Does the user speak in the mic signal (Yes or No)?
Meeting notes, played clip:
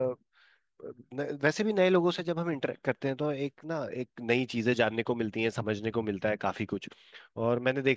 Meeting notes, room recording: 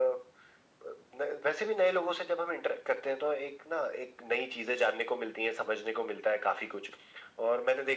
No